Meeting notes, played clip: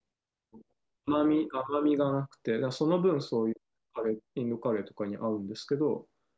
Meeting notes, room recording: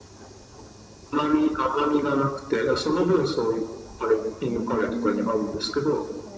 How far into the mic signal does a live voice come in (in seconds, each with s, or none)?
4.5 s